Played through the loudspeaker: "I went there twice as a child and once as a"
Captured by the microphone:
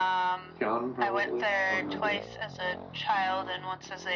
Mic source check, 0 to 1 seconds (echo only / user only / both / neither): both